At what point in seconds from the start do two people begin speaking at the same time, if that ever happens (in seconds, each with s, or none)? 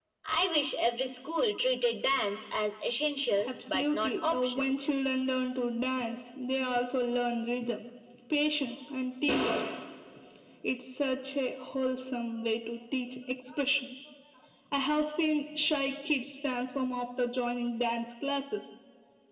3.4 s